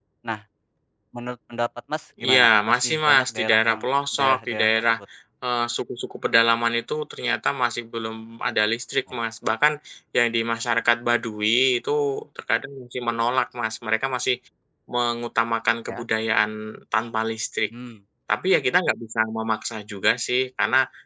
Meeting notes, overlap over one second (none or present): present